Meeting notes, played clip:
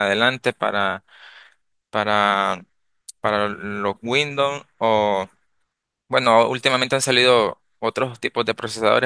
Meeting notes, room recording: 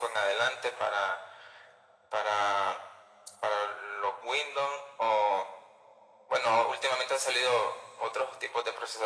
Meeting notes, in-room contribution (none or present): none